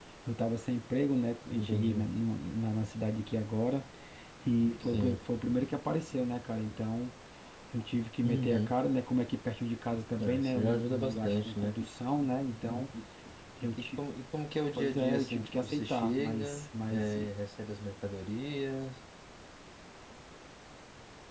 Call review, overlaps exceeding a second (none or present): present